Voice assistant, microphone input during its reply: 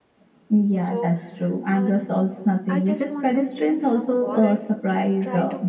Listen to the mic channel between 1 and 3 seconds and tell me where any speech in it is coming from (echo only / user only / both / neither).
both